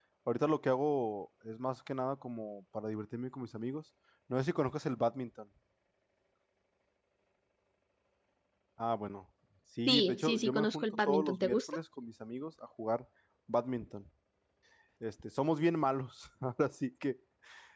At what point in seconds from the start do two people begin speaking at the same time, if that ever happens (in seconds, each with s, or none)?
9.9 s